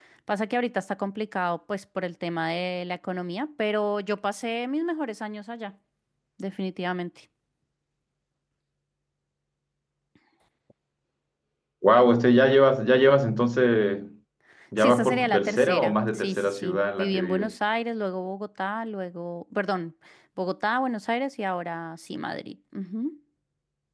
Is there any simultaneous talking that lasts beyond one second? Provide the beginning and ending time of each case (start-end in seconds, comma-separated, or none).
14.8-17.5